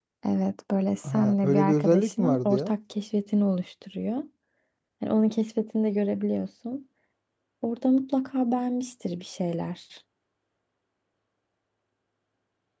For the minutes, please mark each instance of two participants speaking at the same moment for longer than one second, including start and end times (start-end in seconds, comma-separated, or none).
1.0-2.7